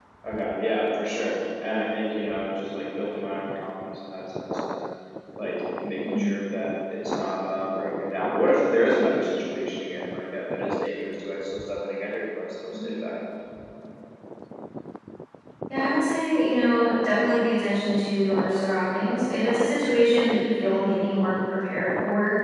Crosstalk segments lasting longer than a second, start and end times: none

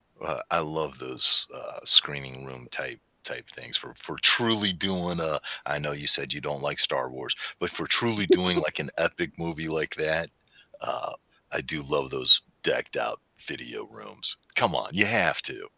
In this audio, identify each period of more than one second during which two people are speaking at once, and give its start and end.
none

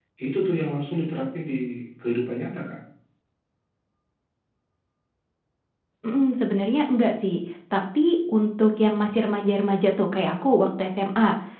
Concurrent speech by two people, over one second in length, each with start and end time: none

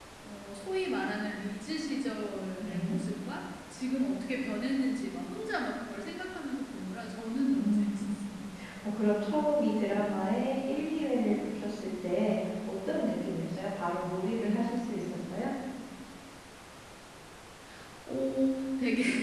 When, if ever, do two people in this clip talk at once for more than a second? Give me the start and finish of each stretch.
none

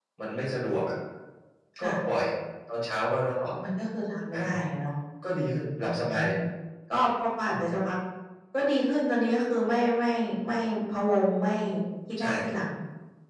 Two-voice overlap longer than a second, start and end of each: none

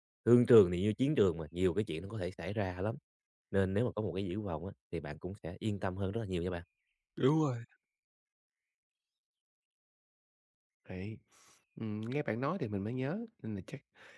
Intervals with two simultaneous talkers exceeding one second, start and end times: none

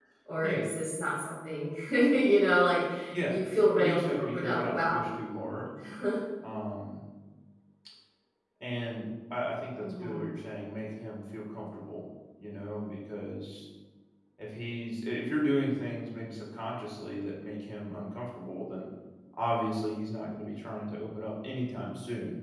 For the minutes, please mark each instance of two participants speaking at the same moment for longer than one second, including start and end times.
3.8-5.0

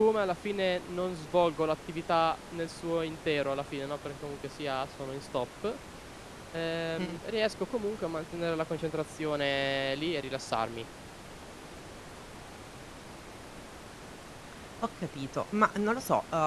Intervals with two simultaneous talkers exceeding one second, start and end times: none

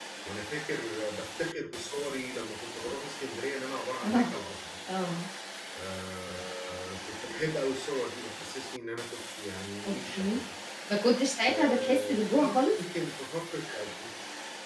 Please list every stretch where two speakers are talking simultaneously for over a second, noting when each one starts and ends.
11.5-12.8

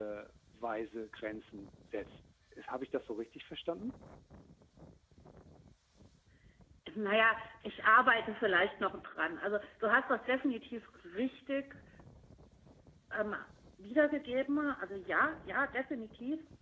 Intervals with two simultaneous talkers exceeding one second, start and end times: none

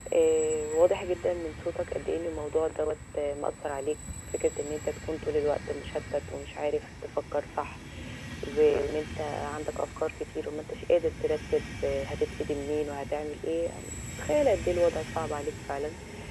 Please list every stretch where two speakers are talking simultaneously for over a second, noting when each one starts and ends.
none

